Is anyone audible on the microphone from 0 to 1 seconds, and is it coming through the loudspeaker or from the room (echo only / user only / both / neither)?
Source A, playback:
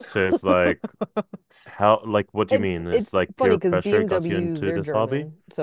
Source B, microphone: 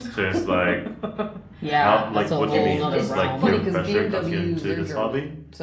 echo only